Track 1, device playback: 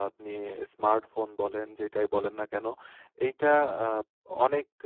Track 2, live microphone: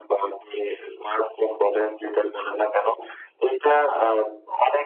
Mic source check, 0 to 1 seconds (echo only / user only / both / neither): echo only